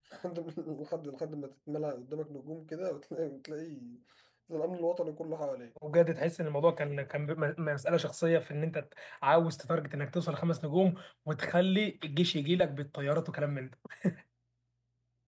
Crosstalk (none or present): none